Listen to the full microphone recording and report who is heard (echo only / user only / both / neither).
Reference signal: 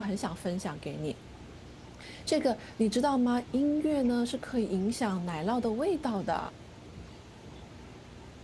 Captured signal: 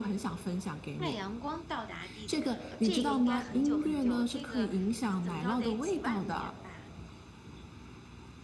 both